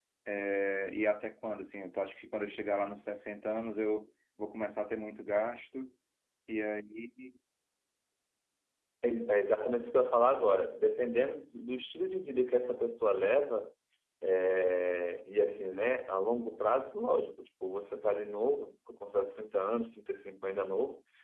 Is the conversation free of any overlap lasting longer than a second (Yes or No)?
Yes